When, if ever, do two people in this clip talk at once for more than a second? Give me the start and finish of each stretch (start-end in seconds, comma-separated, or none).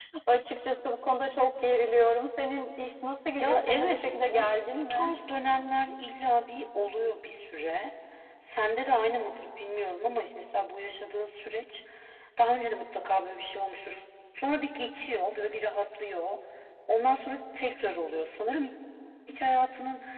3.4-5.1